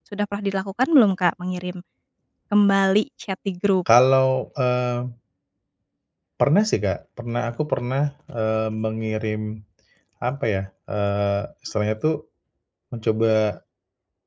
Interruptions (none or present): none